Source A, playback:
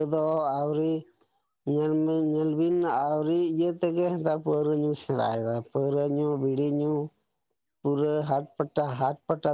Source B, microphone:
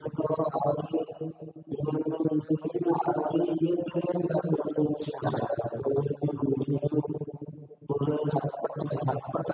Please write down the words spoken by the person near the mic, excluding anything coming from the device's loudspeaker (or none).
none